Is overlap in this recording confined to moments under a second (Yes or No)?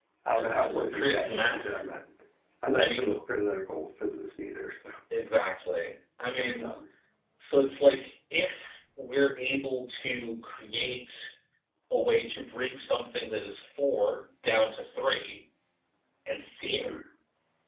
No